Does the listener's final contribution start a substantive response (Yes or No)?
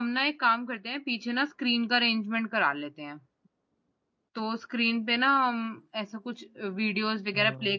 No